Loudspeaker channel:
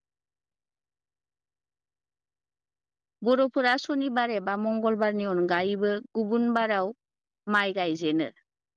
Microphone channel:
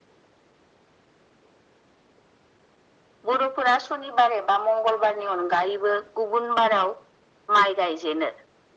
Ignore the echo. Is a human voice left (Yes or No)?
No